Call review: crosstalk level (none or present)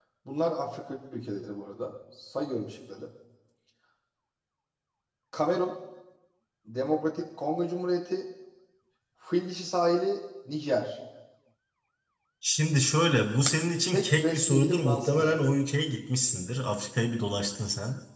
present